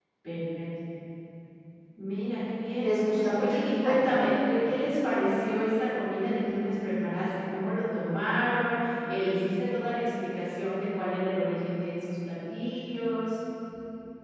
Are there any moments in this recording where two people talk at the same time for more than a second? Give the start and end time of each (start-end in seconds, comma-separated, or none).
2.8-4.1